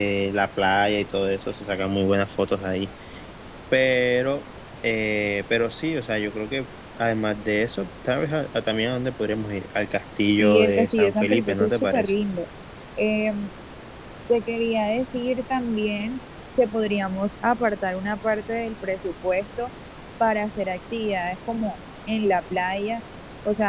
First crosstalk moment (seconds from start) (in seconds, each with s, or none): 10.4 s